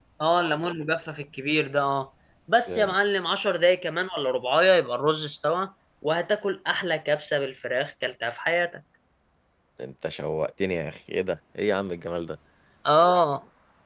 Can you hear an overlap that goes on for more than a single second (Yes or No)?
No